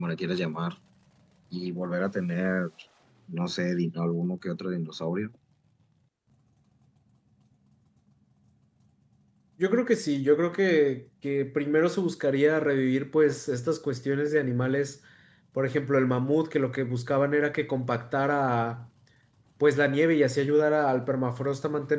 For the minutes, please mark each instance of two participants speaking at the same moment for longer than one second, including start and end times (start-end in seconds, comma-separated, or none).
none